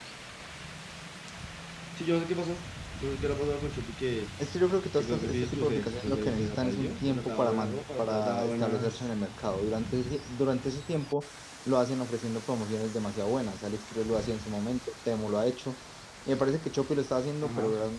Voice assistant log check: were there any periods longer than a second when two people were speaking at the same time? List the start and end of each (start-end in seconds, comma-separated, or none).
5.0-9.1